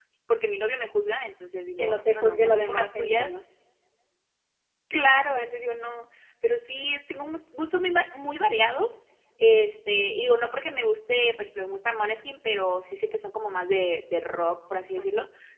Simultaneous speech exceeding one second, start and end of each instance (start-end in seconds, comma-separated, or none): 1.8-3.3